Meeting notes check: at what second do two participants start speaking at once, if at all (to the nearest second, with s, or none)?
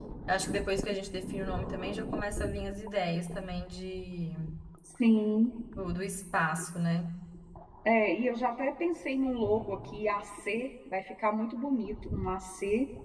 none